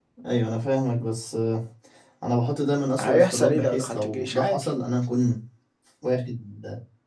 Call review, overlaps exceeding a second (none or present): present